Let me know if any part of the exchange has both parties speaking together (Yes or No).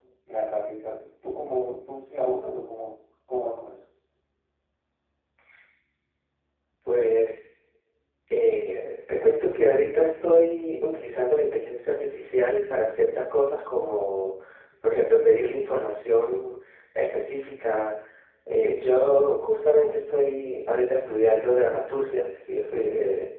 No